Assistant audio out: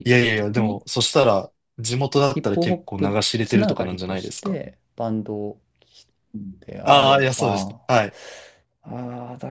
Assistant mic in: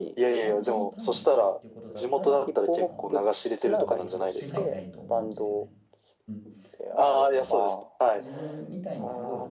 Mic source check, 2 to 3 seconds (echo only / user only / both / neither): both